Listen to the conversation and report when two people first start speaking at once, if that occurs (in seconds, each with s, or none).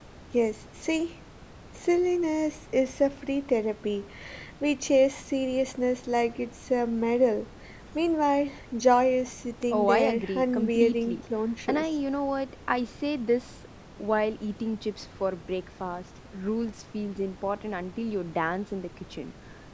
9.7 s